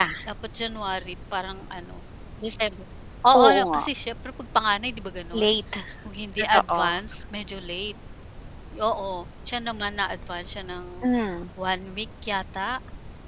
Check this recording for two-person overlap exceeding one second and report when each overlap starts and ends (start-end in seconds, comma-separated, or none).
none